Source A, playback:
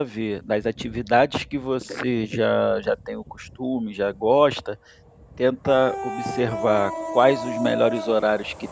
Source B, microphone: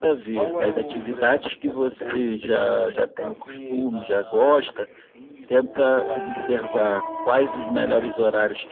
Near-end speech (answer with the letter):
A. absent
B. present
B